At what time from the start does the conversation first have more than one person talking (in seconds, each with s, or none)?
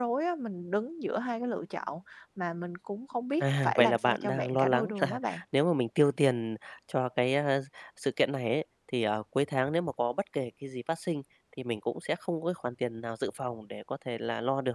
3.4 s